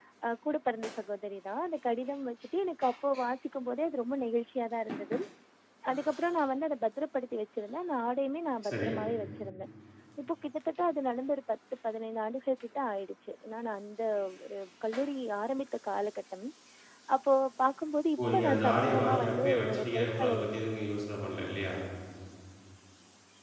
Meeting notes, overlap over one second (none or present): present